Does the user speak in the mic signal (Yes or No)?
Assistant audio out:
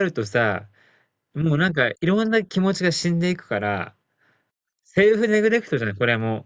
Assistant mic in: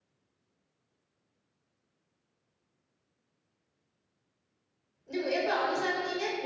Yes